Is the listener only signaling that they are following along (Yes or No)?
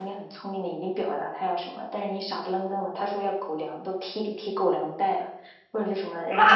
No